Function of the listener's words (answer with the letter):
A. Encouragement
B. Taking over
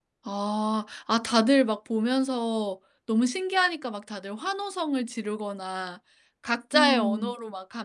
A